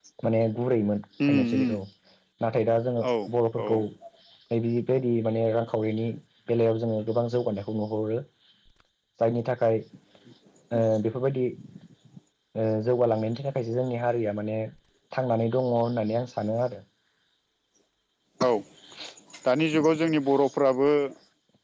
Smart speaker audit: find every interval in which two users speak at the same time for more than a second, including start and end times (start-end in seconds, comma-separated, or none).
none